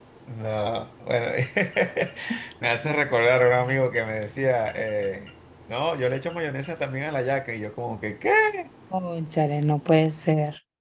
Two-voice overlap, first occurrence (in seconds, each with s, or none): none